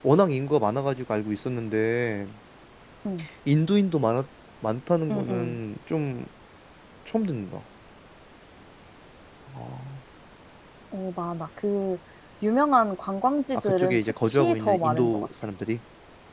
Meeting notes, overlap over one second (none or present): present